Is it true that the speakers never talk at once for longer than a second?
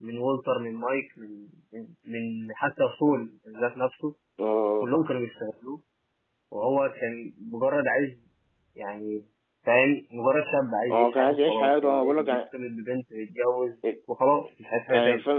No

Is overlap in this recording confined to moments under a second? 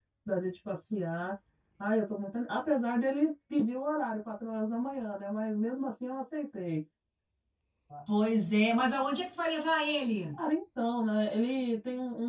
Yes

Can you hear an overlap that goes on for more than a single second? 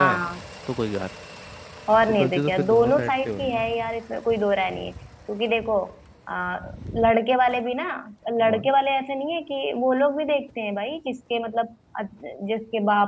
Yes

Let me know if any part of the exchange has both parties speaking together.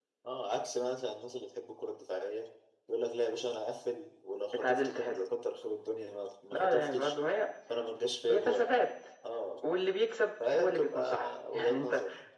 Yes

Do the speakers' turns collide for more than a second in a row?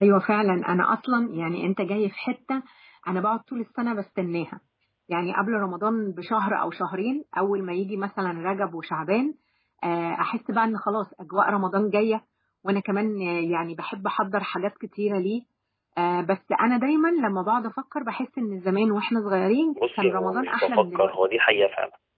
Yes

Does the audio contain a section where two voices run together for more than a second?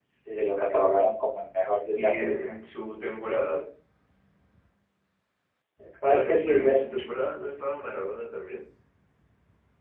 Yes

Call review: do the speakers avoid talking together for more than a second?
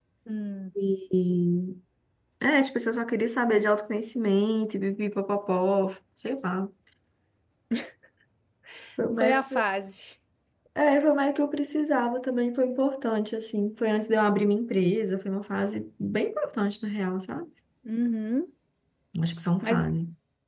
Yes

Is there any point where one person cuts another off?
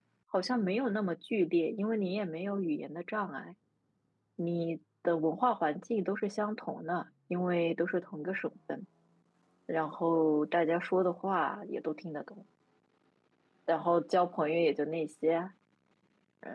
No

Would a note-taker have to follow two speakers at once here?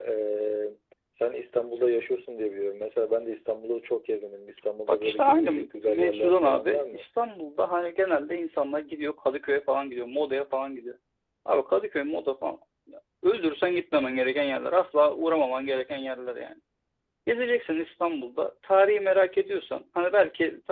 Yes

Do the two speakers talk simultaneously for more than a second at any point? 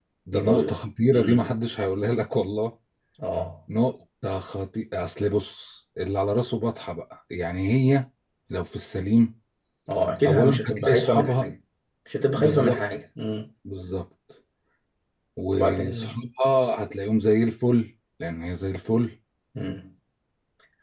Yes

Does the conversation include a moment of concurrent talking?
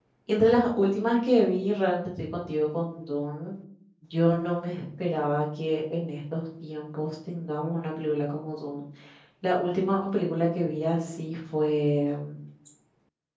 No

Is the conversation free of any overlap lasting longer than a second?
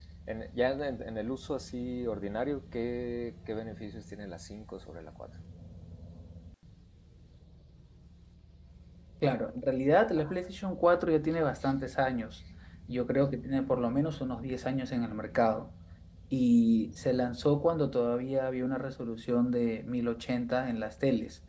Yes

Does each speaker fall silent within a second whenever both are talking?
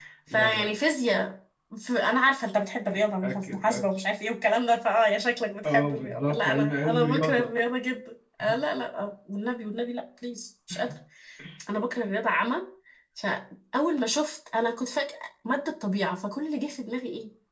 No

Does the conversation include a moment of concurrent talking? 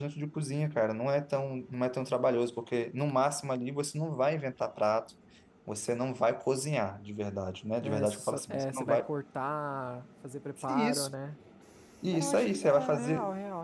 Yes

